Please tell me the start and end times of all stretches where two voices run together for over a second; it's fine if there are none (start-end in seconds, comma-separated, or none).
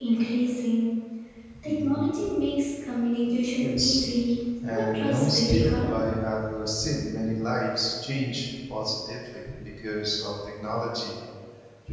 4.7-5.9